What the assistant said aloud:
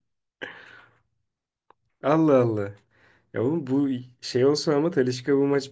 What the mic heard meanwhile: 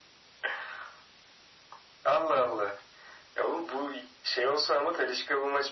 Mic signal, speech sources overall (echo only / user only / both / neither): echo only